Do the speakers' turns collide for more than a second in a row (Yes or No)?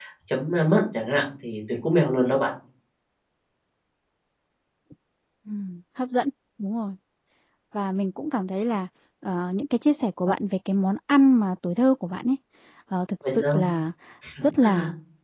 No